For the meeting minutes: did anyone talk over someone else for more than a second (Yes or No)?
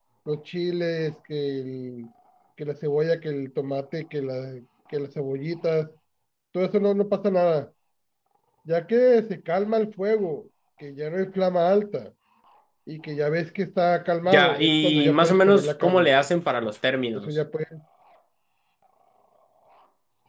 Yes